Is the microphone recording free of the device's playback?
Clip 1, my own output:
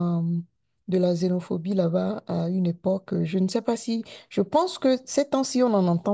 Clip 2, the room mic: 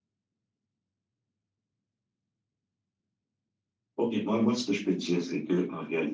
Yes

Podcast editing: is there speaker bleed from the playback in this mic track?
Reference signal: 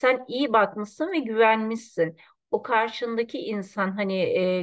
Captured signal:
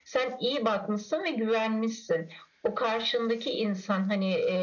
Yes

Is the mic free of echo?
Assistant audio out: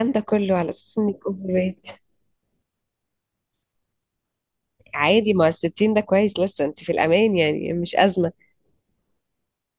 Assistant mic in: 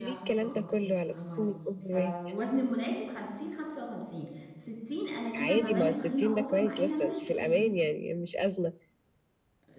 No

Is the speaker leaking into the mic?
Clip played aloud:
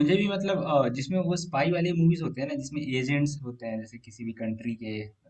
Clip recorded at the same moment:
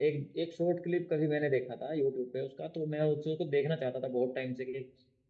No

